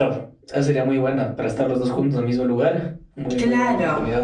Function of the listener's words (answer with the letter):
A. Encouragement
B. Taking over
B